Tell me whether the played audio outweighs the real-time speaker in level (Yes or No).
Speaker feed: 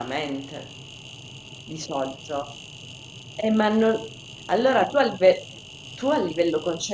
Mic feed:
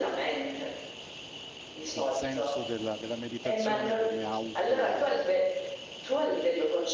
Yes